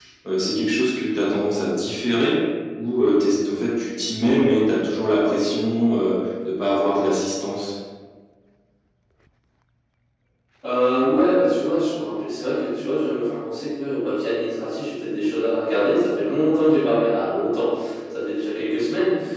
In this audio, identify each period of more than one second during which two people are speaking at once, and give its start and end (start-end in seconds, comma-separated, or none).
none